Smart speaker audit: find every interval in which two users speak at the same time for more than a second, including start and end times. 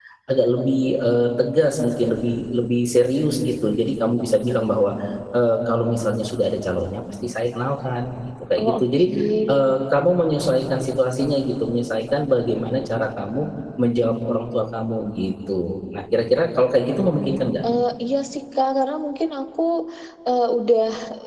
none

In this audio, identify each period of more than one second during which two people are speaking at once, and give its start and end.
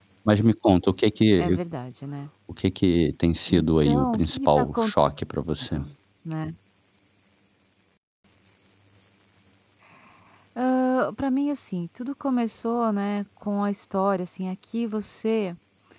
3.5-4.9

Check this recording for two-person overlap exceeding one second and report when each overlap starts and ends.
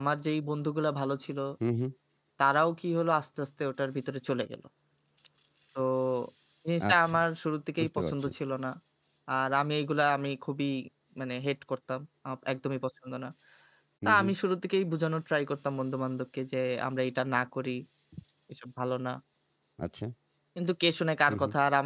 none

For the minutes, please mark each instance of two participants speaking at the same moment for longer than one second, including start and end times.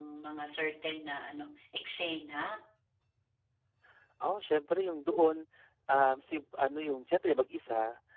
none

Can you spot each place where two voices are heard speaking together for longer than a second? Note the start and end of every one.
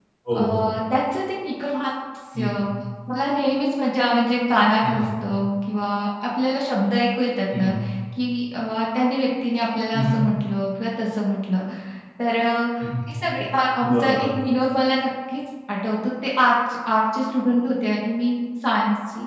none

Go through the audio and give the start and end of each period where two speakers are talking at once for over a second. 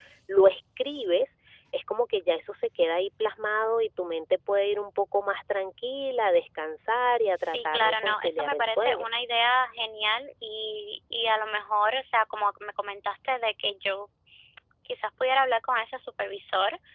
7.4-9.1

